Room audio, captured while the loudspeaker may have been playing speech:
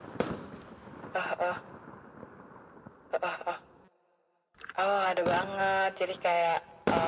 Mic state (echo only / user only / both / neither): echo only